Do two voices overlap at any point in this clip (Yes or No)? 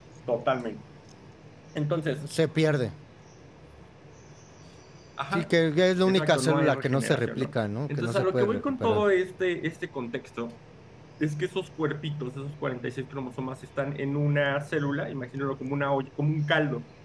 Yes